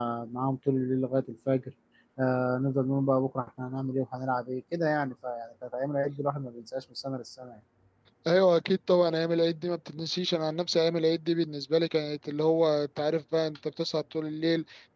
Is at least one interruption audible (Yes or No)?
No